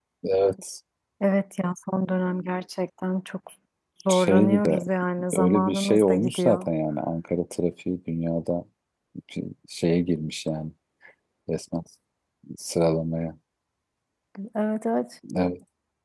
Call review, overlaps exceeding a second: present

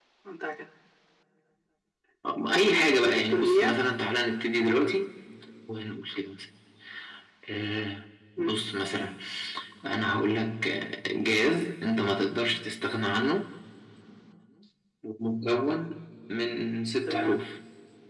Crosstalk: present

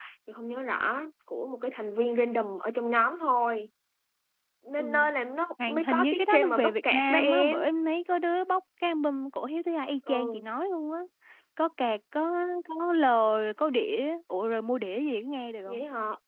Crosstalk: present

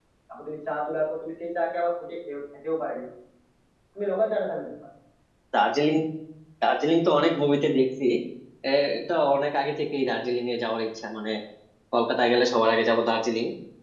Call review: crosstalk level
none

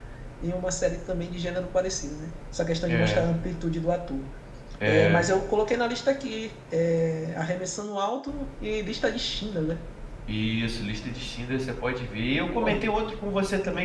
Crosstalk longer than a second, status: none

